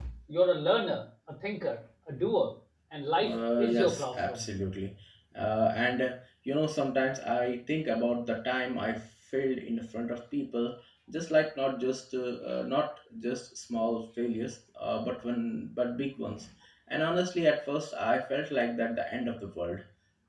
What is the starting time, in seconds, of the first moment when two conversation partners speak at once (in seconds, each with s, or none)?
3.2 s